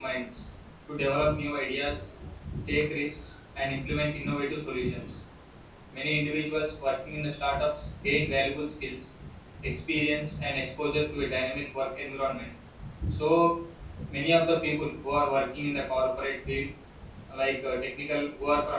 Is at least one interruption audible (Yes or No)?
No